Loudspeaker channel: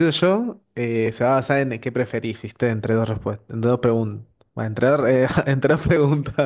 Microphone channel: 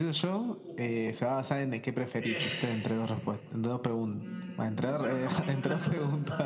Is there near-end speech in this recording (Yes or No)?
Yes